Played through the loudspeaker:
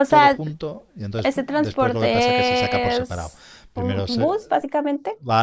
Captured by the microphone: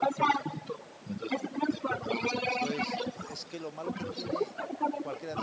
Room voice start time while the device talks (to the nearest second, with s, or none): 3 s